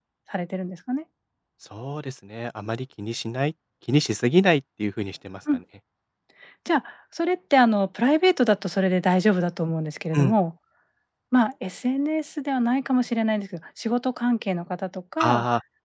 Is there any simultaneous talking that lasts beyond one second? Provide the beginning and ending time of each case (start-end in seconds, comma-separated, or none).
none